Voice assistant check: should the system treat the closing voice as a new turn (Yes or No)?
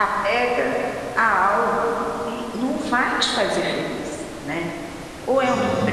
No